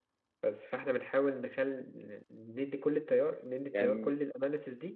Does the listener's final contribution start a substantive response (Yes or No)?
No